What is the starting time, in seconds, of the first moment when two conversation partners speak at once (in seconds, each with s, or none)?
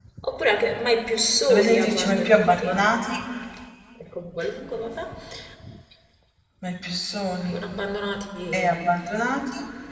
1.5 s